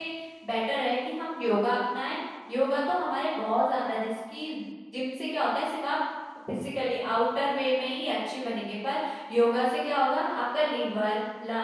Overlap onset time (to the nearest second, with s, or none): none